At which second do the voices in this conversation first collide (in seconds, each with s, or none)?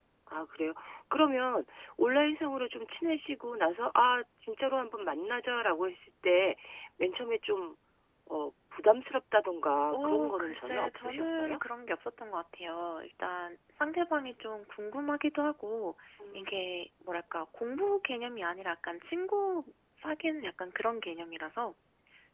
9.9 s